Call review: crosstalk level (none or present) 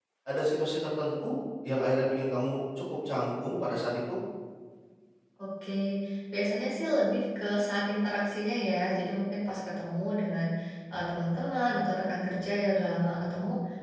none